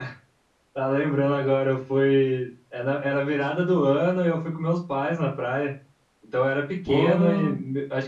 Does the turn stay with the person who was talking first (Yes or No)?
Yes